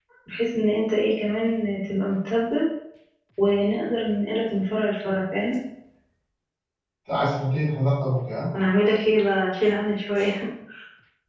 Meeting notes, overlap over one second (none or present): none